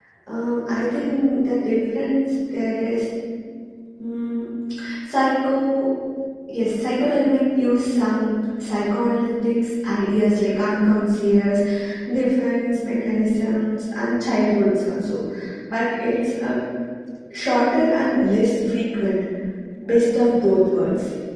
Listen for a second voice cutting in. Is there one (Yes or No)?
No